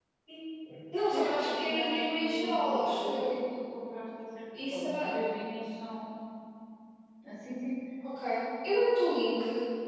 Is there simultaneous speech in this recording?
Yes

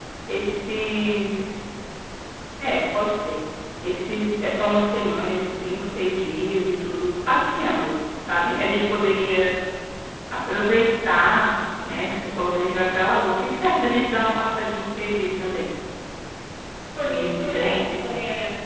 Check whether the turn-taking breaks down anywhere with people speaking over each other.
Yes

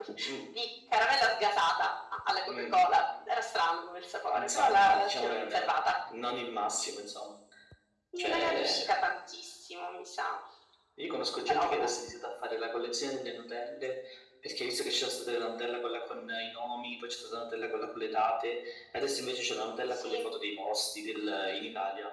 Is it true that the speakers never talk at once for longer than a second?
No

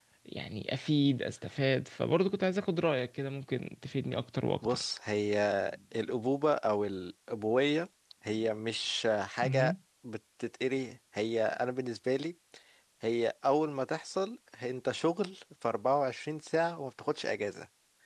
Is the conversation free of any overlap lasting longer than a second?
Yes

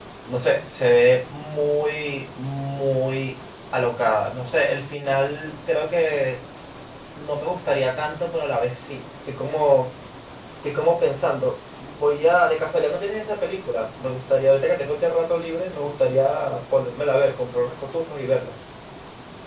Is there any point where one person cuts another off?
No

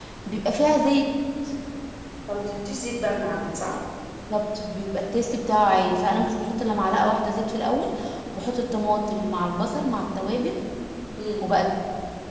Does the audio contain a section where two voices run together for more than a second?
No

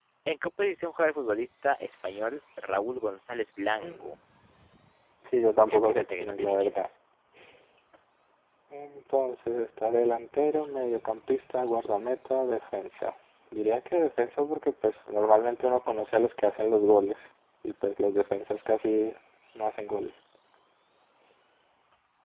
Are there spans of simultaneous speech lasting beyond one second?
Yes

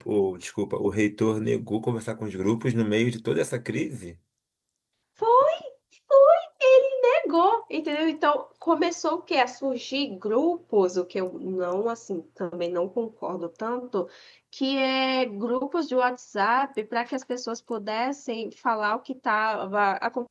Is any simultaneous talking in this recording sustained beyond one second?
No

